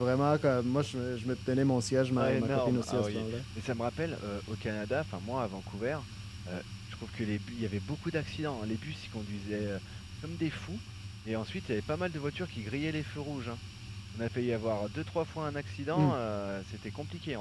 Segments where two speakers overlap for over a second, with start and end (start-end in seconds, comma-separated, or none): 2.2-3.4